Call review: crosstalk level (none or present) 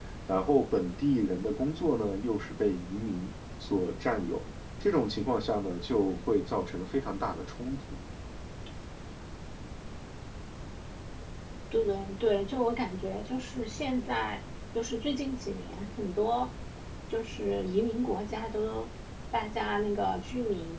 none